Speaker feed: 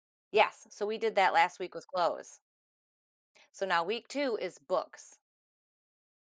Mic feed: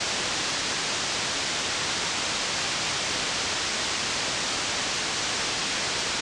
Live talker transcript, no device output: none

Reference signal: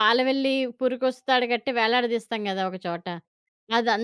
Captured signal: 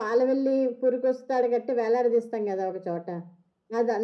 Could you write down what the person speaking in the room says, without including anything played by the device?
none

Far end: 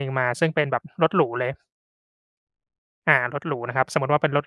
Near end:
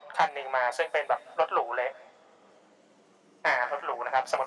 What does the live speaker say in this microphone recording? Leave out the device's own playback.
none

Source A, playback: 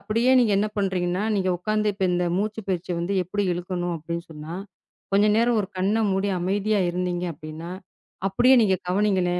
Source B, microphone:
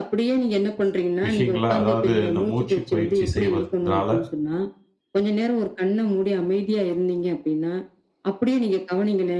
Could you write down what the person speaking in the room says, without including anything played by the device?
விஷயங்கள, அதாவது இந்த மூச்சு பயிற்சி செய்வதனால

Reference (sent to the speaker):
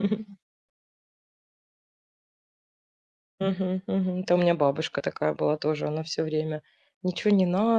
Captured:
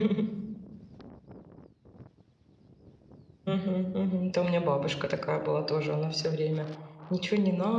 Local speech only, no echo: none

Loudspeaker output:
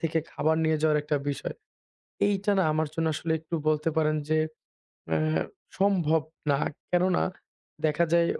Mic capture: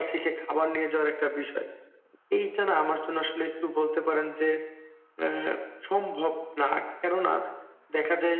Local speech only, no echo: none

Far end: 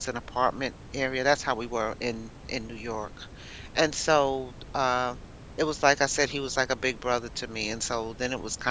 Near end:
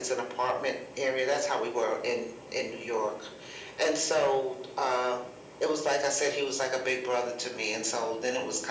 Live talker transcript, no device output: none

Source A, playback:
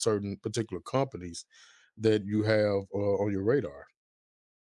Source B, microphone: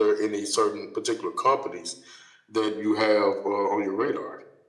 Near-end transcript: none

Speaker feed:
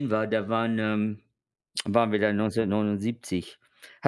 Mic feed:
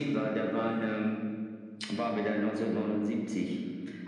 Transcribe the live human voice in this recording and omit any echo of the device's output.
none

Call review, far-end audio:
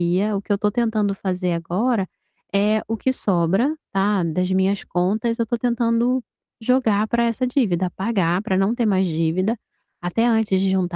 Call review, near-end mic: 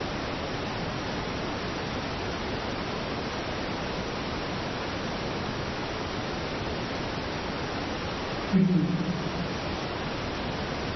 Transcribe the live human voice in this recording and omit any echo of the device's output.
Uhum.

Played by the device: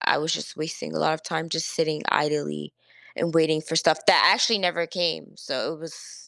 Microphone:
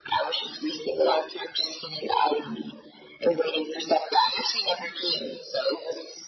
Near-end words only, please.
none

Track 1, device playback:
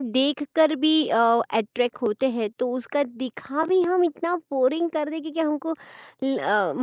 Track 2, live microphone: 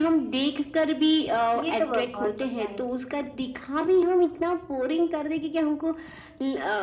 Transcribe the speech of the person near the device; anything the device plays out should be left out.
ये तो ब बहुत बड़ा है।

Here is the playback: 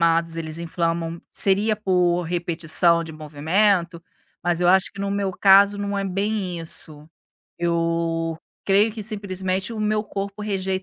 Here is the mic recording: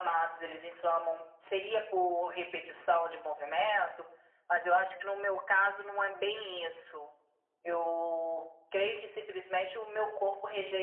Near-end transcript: none

